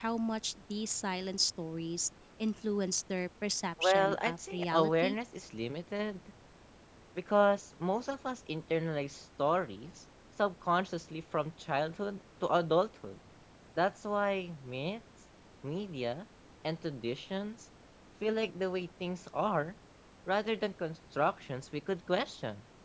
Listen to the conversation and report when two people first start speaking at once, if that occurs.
3.8 s

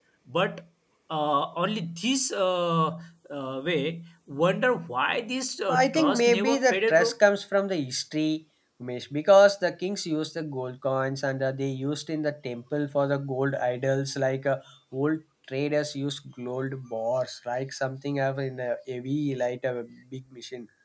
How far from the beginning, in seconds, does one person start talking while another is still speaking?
5.7 s

